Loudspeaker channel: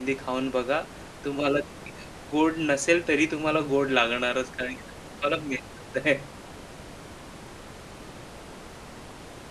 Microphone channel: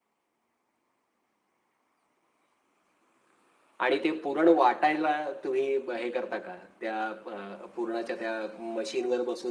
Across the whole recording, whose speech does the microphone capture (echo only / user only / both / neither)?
user only